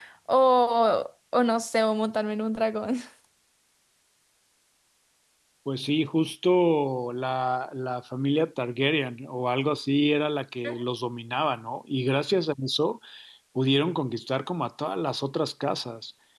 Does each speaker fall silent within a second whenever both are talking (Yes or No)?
Yes